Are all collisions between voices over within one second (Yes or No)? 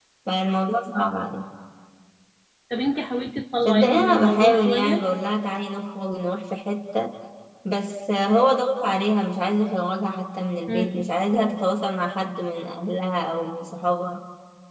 No